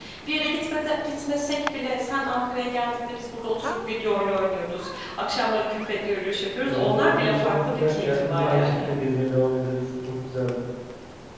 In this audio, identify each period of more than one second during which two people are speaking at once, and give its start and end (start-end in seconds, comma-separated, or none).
6.7-8.9